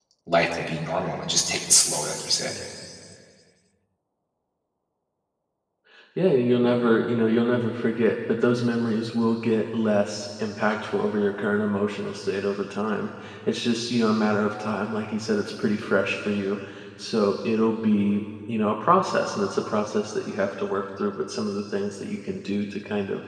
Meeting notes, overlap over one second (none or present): none